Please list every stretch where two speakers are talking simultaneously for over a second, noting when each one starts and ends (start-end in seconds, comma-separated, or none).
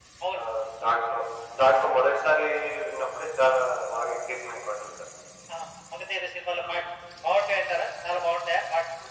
none